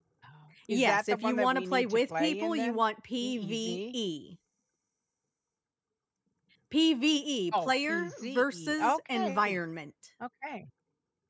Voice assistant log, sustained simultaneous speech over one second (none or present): present